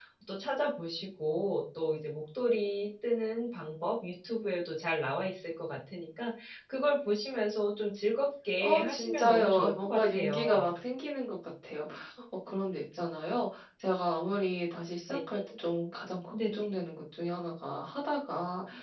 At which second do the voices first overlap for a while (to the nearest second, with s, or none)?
9 s